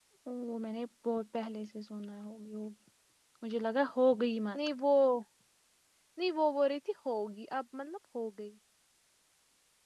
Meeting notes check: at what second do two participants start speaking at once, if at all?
none

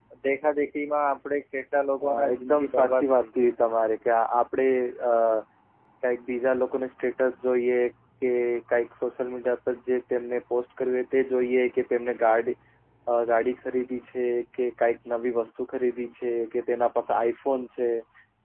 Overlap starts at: 2.0 s

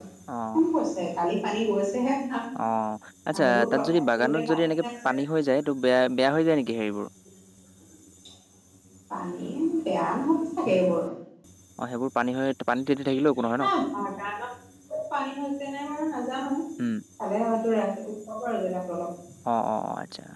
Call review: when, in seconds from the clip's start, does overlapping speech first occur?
3.3 s

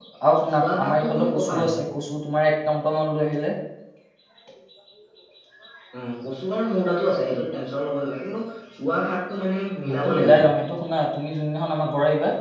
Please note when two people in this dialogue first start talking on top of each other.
0.6 s

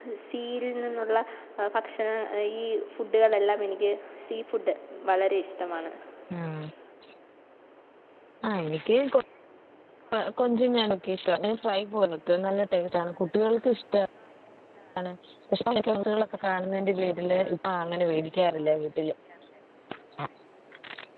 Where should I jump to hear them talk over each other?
none

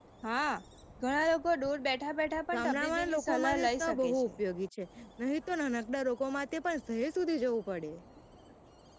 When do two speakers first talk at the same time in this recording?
2.5 s

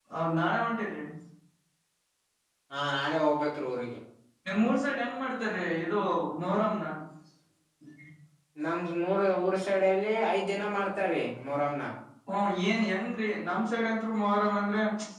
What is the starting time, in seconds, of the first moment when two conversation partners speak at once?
none

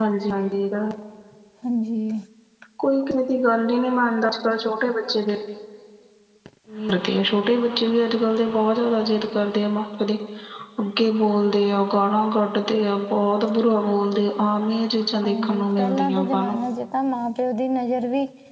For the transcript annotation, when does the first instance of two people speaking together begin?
15.2 s

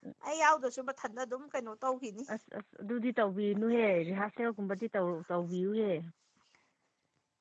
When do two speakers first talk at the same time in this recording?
none

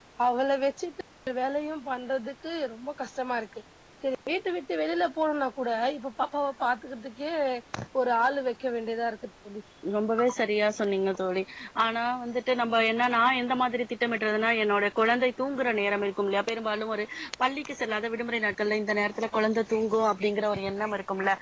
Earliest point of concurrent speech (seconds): none

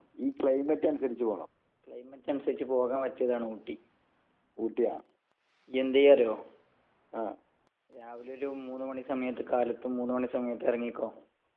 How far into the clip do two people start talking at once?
none

